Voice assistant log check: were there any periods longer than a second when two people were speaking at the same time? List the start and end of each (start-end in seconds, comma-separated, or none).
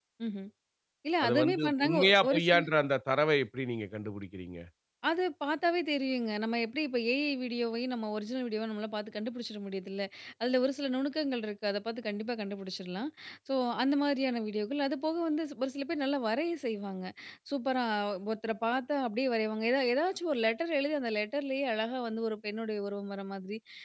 1.2-2.6